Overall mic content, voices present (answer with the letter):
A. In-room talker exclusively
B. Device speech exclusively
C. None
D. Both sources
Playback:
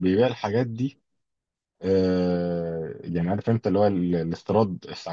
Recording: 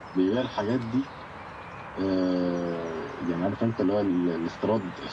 B